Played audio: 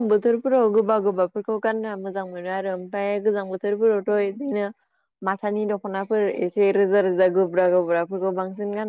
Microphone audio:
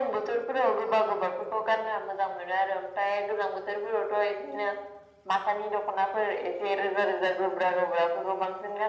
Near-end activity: none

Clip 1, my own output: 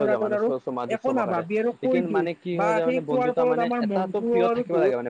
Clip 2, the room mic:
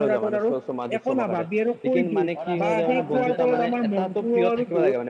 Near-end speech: present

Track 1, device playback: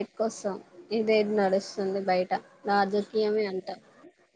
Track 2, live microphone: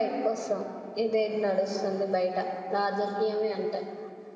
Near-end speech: none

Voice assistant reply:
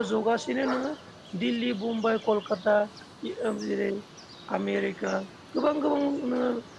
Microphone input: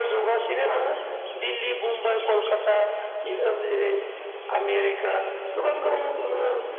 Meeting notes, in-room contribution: none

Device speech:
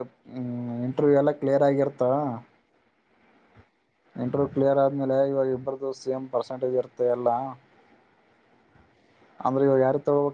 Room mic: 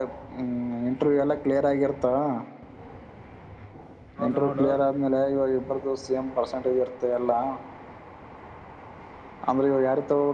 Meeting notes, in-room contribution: present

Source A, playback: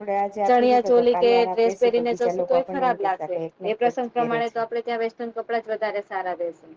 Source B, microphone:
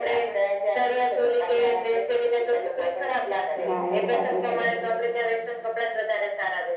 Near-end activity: present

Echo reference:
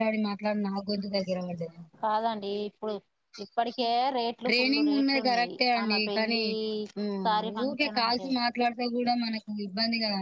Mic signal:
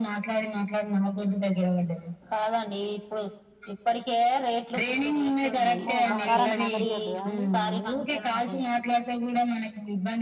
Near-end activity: present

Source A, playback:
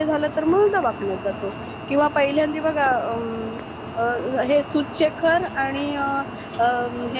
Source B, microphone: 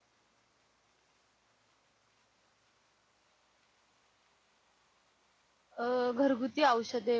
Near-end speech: present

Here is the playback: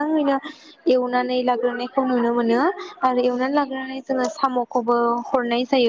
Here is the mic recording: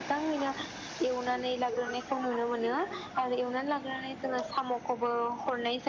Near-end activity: none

